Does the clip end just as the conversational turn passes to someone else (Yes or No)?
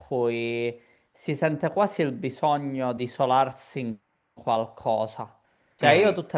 No